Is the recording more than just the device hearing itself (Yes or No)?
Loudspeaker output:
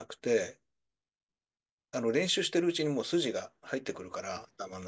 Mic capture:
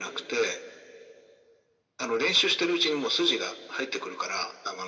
No